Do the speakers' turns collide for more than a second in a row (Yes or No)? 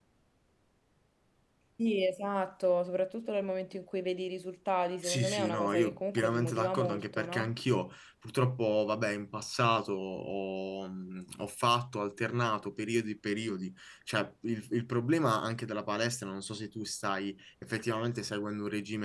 Yes